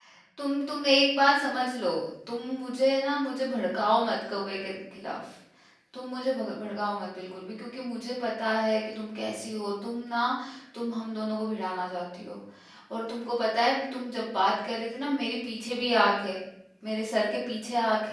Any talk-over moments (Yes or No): No